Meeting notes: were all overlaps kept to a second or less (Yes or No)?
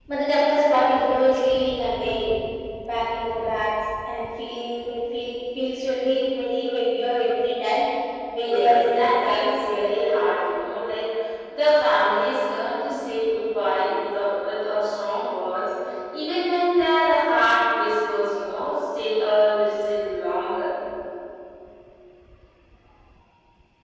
No